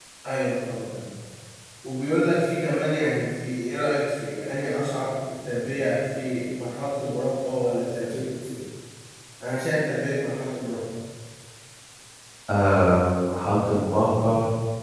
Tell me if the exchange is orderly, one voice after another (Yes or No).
Yes